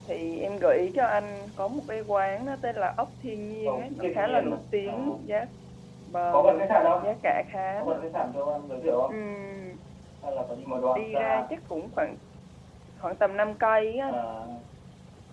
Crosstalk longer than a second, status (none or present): present